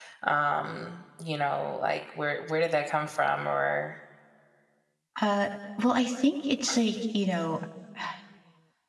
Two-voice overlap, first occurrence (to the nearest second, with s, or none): none